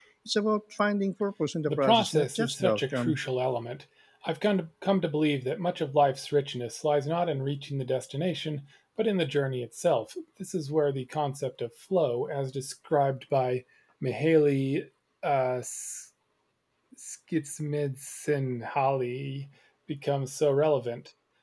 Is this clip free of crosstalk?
No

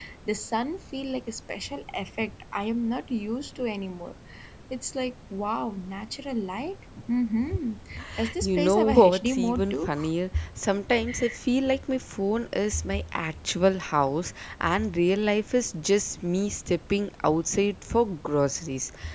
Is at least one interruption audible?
Yes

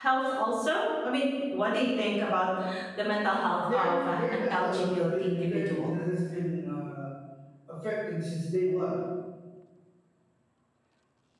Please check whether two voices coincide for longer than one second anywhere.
Yes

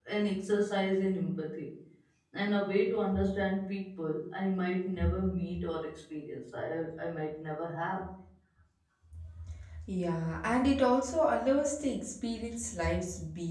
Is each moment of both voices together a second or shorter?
Yes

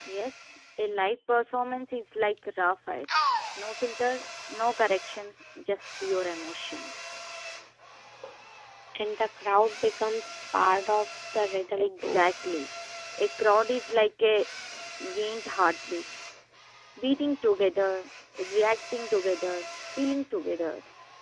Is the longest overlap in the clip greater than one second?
No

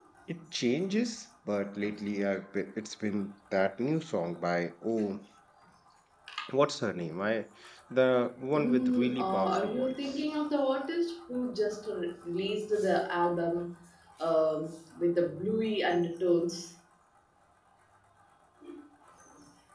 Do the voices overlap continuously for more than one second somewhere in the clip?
Yes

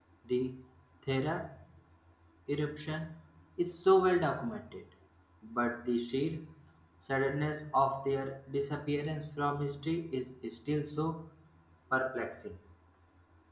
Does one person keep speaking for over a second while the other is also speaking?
No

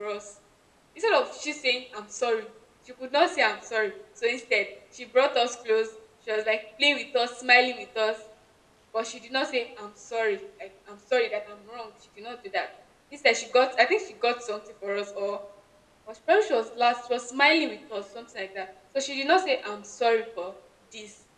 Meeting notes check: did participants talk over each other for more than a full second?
No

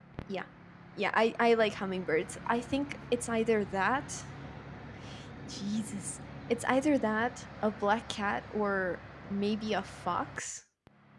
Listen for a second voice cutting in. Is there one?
No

